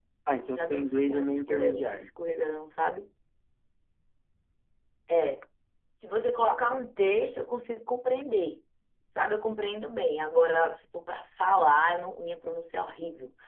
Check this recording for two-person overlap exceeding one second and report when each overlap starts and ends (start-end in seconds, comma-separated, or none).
0.6-2.1